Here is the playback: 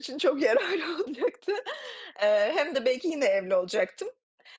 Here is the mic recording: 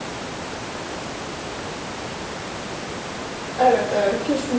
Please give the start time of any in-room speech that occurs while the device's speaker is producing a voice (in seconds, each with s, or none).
3.6 s